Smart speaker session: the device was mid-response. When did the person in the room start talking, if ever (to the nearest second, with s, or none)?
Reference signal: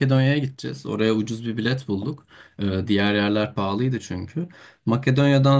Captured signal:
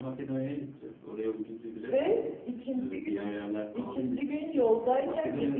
2 s